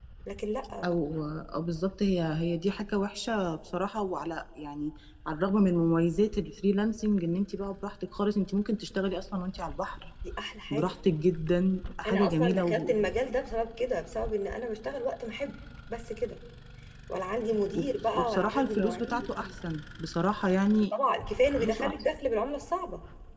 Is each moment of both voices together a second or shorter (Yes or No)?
No